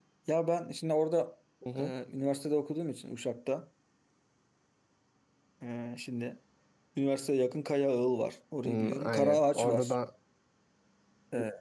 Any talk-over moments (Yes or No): Yes